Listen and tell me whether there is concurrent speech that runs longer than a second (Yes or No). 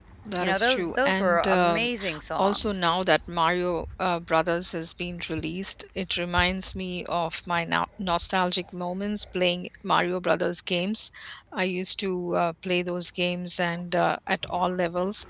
Yes